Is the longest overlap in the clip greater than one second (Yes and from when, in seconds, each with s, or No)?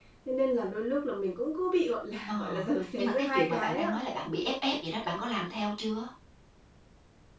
Yes, from 2.3 s